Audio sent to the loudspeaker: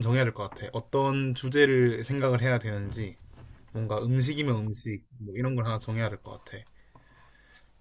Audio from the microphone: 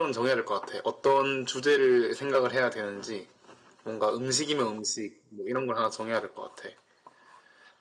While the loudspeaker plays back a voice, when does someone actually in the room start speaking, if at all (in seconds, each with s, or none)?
none